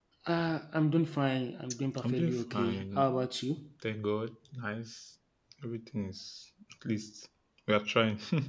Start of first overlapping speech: 2 s

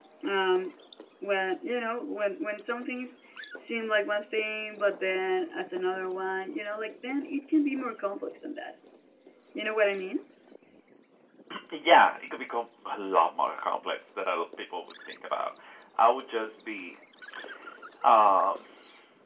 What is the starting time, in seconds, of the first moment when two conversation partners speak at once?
none

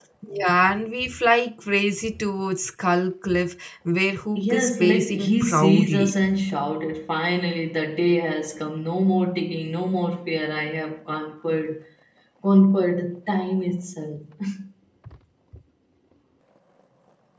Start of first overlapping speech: 4 s

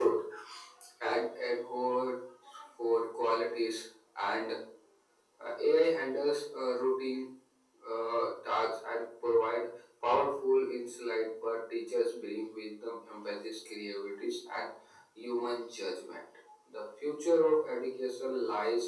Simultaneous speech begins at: none

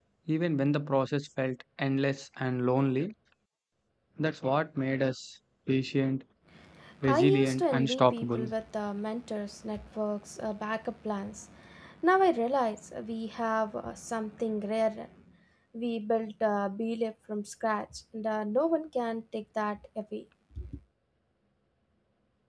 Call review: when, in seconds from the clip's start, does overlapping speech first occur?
7 s

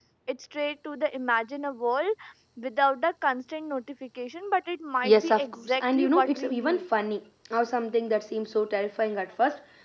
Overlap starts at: 5 s

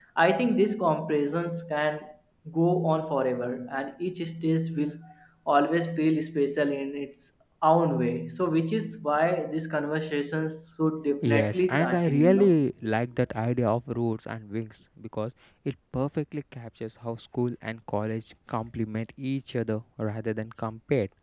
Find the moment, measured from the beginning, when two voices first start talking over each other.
11 s

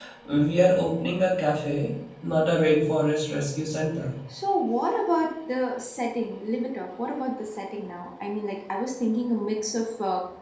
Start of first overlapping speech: none

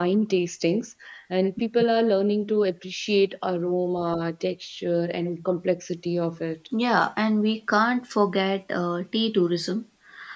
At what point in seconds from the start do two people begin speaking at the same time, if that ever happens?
none

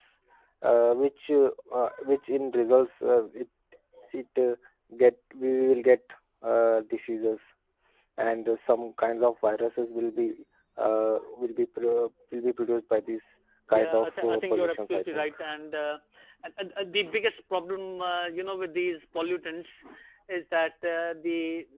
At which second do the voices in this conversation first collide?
14 s

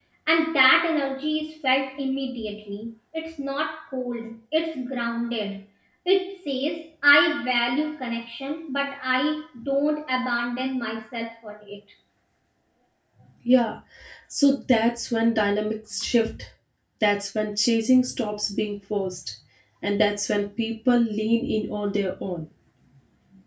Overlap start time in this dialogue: none

